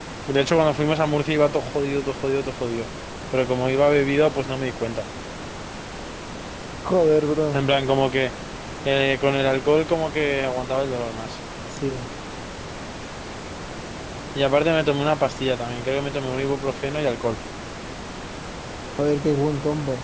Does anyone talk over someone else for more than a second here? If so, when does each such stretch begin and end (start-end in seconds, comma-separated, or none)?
none